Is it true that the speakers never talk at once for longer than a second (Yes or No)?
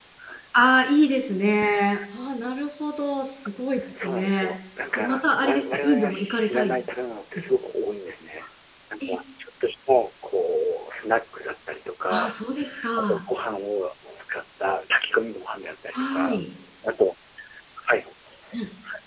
No